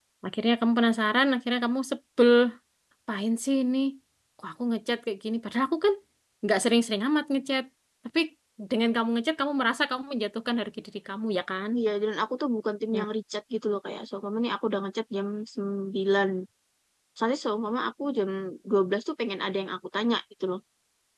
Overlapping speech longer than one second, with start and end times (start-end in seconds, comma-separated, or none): none